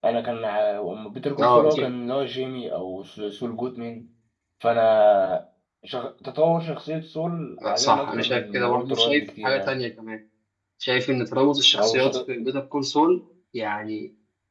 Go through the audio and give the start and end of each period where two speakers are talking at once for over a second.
7.7-9.8

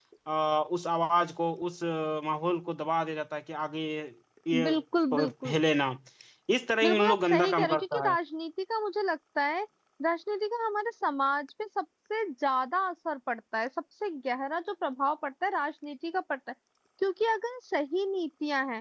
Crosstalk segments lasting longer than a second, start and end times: 6.8-8.1

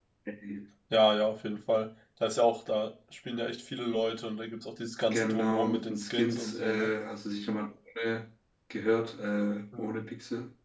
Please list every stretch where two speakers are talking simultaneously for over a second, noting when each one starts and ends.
5.1-6.9

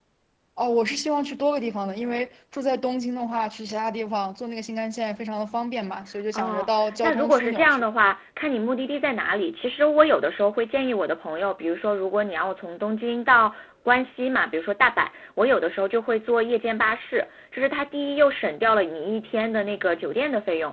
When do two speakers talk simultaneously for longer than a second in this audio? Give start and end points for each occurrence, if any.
6.3-7.8

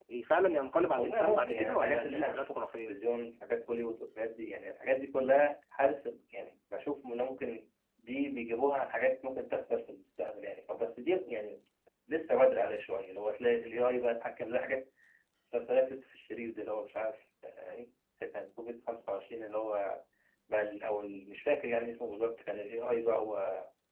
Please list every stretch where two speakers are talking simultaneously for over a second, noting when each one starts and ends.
1.0-2.9

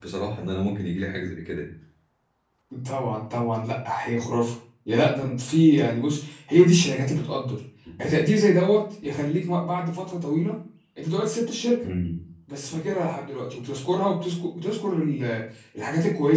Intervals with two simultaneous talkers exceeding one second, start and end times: none

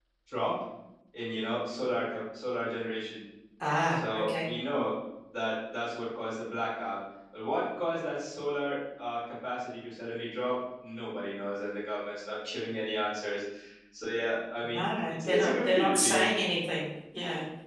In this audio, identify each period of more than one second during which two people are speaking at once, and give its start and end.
14.6-16.2

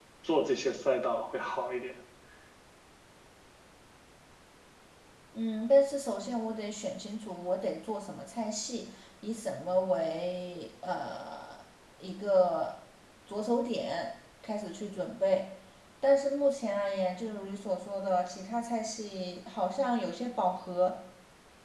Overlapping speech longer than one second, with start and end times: none

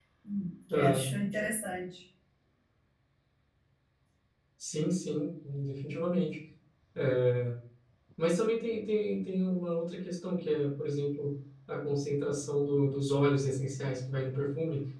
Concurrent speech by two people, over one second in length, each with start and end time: none

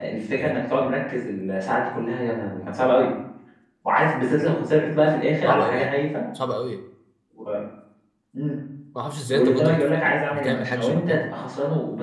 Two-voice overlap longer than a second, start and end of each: 9.3-11.3

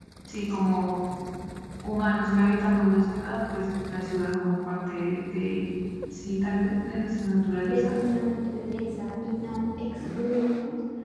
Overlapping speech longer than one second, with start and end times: none

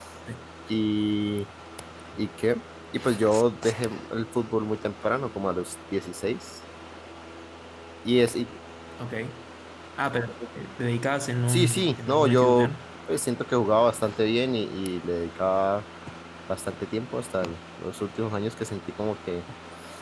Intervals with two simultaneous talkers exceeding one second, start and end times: 11.5-12.7

